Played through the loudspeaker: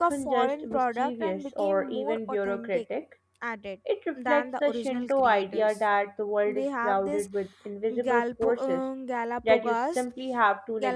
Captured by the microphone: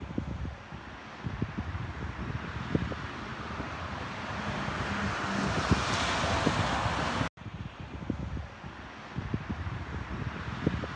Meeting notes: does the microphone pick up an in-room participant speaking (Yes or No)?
No